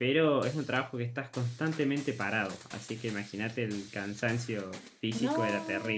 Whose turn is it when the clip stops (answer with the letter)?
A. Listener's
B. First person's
A